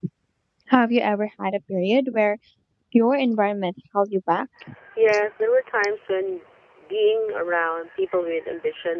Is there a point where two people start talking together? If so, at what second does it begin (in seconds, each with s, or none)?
none